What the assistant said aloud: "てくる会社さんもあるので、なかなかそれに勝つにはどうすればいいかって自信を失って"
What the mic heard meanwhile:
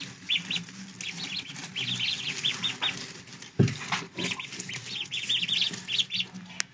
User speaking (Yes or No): No